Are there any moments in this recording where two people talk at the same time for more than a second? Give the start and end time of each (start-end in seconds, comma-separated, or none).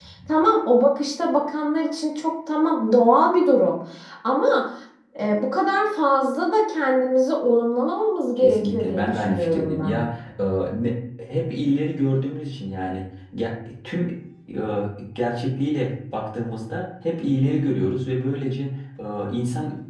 8.4-10.0